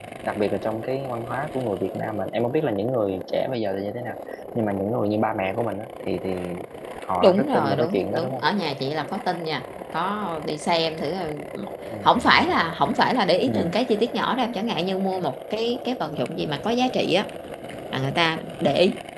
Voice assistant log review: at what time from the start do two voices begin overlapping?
7.2 s

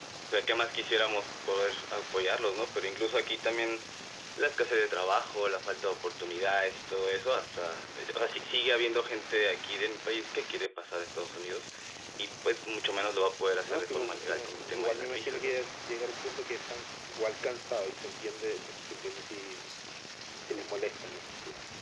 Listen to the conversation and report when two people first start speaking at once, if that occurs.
13.7 s

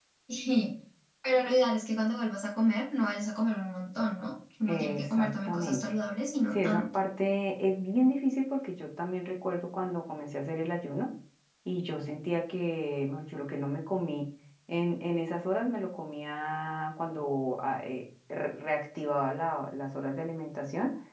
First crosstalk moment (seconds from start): 4.7 s

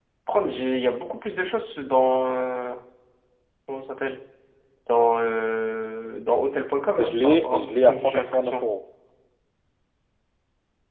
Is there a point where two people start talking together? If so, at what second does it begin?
7.0 s

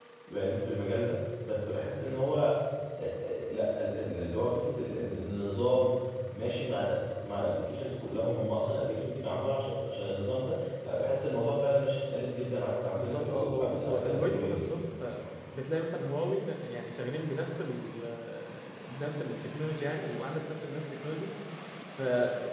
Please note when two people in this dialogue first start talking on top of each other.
12.9 s

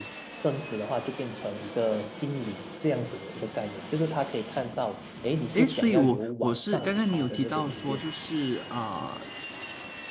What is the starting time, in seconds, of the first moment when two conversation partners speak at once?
5.5 s

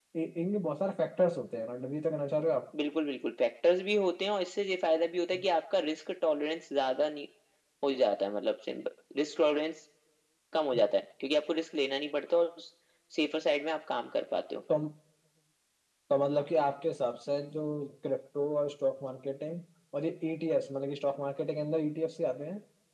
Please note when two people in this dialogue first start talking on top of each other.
none

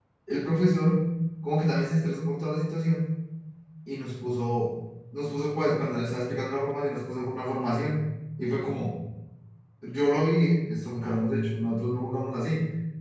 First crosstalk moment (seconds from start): none

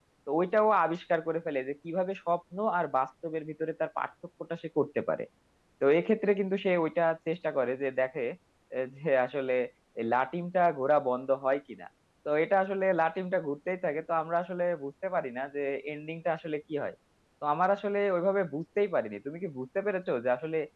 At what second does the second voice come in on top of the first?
none

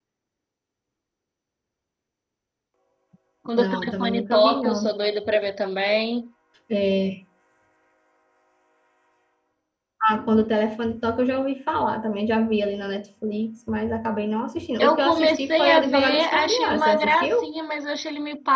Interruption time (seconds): 3.6 s

